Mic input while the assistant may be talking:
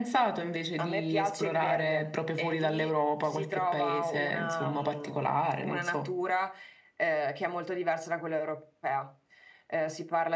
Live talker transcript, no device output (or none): none